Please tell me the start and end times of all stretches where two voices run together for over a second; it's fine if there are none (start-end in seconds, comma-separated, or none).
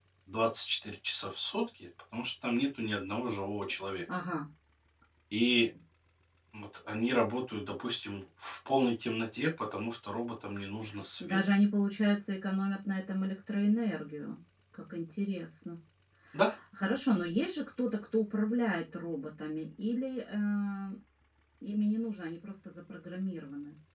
none